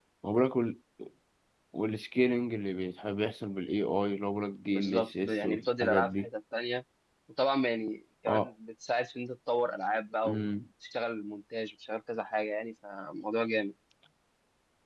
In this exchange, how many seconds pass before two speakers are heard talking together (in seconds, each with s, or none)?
4.7 s